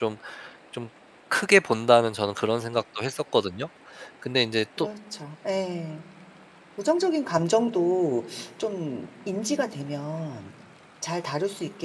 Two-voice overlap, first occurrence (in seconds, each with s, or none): none